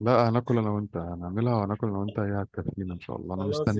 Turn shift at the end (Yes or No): Yes